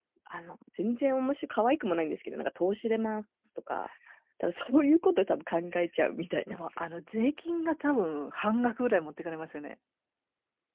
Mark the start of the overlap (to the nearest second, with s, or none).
none